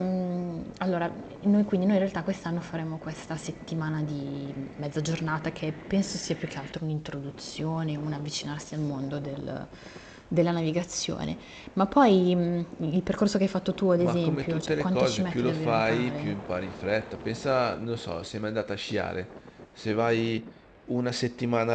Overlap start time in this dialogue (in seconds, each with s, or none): 14.0 s